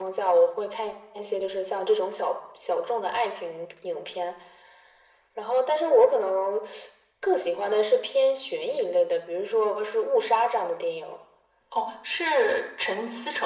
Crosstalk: none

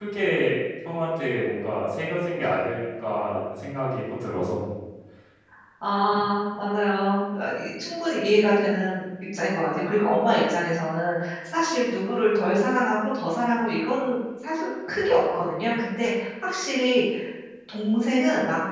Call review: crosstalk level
none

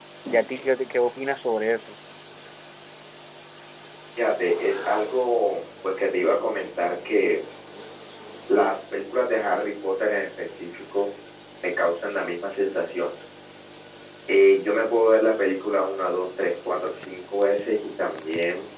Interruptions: none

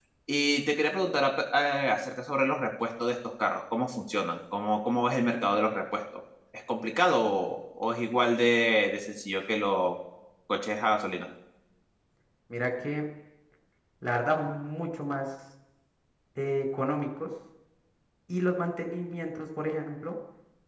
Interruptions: none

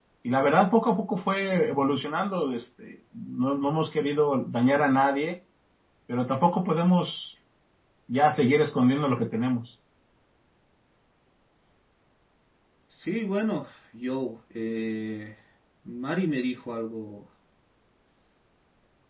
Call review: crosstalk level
none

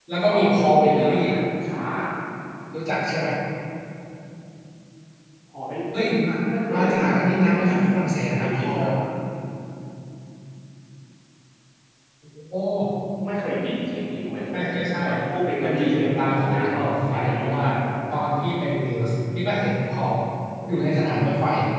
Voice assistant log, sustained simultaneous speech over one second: present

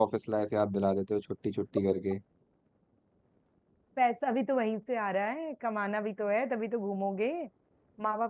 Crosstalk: none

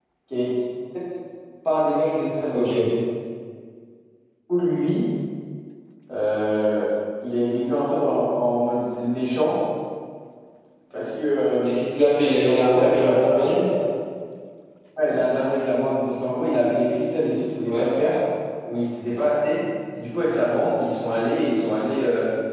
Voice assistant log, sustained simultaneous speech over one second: present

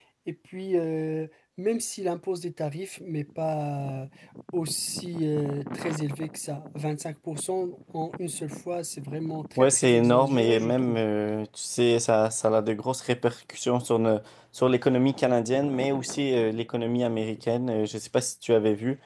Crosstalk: present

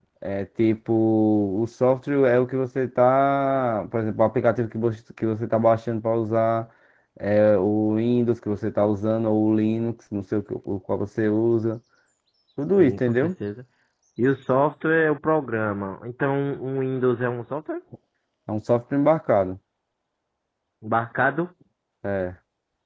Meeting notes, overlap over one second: none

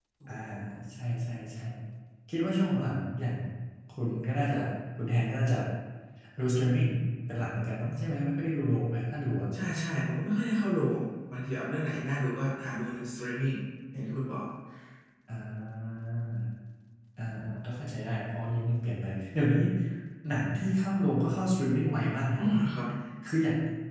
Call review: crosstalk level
none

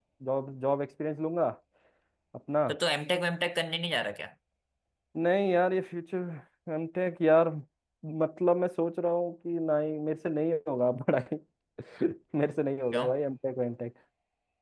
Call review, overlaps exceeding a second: none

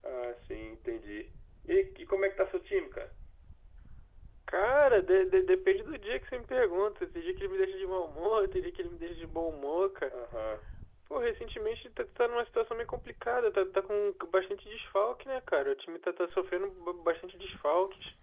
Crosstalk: none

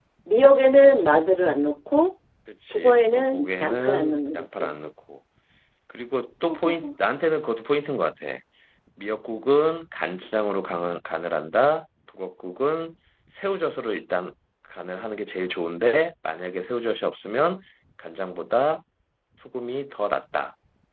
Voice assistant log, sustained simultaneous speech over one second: present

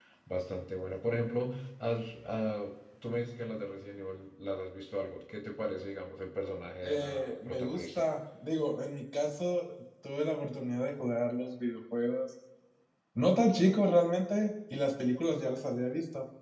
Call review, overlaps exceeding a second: present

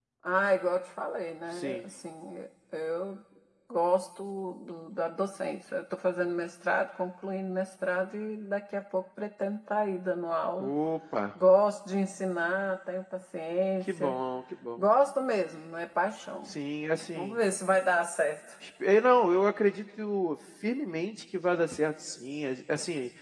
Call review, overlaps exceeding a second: none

